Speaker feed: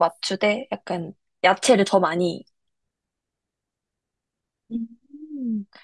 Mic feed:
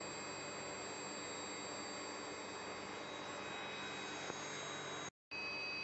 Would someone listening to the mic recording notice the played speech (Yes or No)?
No